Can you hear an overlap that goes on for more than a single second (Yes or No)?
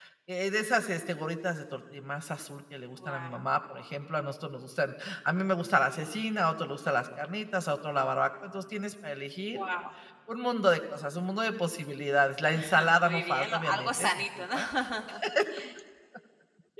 Yes